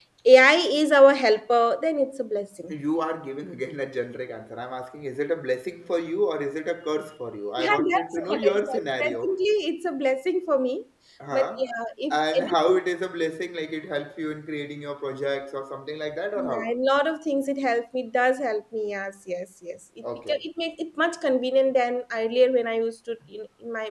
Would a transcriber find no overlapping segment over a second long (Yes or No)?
No